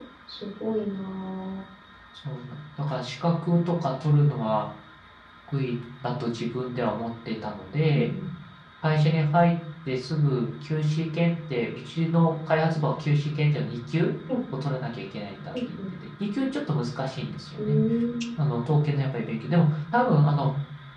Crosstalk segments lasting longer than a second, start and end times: none

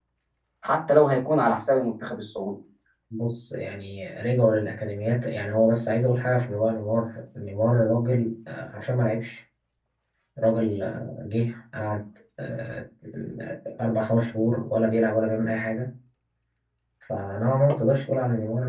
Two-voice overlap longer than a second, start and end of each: none

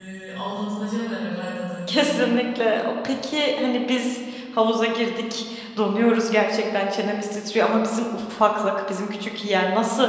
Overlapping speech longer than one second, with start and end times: none

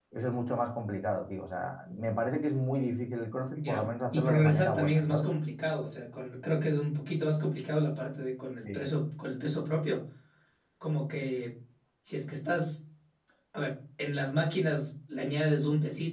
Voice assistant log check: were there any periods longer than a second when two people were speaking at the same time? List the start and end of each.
3.6-5.3

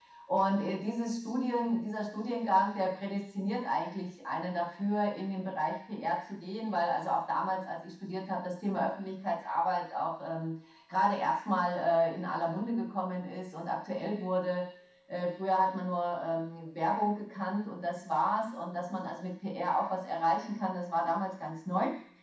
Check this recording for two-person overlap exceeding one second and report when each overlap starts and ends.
none

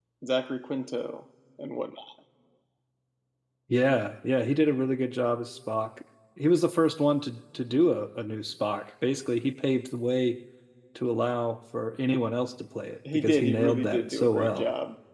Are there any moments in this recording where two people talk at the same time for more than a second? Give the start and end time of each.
13.1-14.6

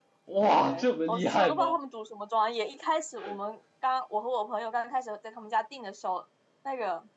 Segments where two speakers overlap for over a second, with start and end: 0.5-1.8

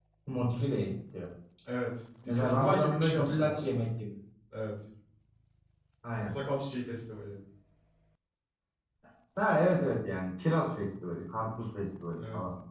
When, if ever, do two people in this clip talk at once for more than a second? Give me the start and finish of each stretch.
2.3-3.6

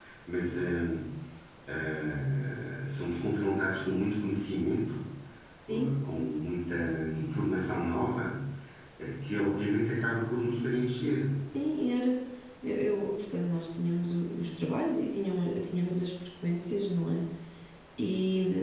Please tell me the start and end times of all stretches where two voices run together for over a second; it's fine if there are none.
none

